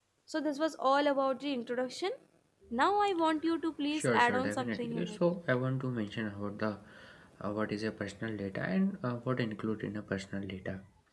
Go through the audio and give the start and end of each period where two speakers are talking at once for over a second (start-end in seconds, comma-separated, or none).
3.9-5.2